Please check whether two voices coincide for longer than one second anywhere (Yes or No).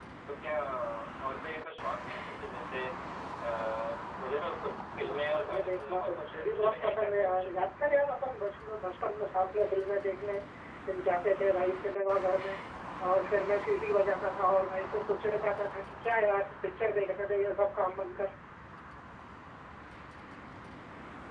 Yes